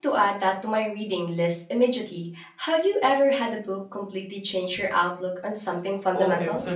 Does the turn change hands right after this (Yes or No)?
Yes